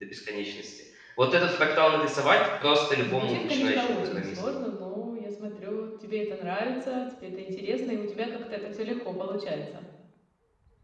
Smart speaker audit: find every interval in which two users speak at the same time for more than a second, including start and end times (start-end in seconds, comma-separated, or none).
3.0-4.4